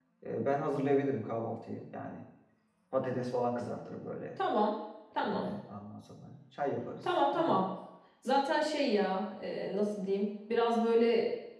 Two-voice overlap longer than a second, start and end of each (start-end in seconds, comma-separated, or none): none